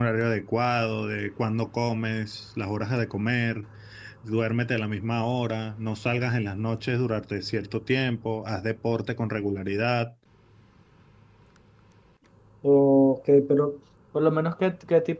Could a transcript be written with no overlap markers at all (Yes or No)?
Yes